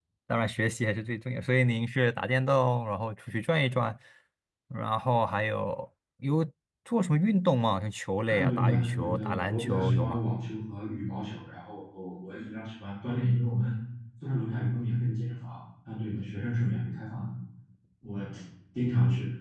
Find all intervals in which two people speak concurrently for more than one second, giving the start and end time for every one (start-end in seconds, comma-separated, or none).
8.3-10.2